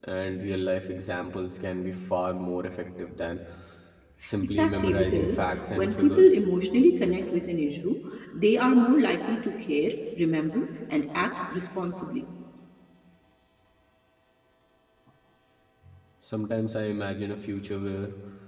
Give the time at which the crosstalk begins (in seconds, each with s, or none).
4.4 s